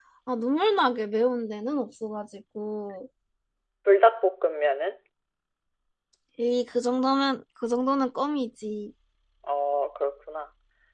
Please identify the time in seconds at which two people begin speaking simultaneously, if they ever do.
none

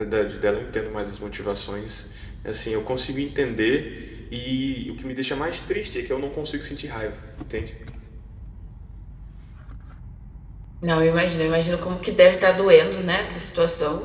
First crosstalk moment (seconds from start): none

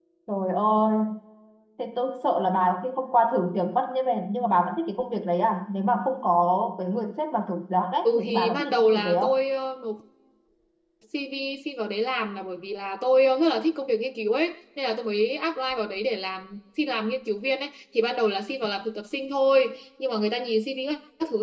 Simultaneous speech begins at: 8 s

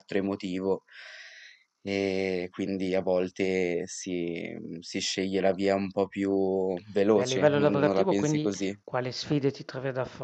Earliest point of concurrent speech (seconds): 7 s

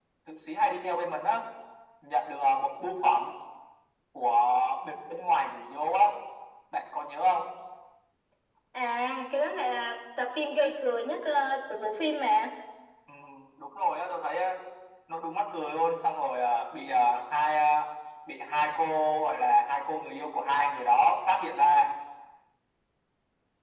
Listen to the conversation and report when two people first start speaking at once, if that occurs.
none

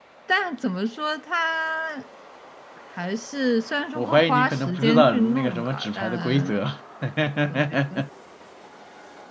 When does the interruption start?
4 s

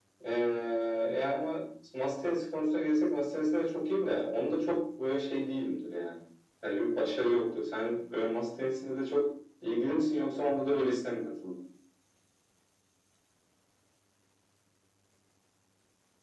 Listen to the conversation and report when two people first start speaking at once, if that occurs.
none

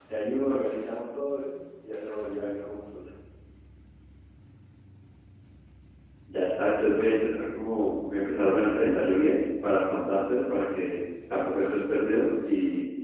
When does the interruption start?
none

